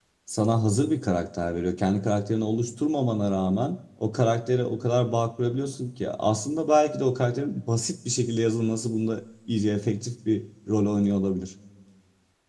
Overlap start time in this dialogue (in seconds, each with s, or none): none